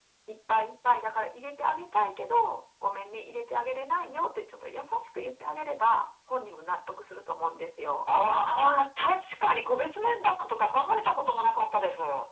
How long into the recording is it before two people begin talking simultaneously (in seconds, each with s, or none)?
none